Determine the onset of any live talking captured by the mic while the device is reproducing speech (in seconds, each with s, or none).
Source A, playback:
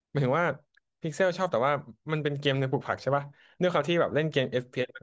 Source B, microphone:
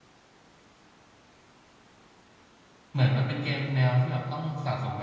2.9 s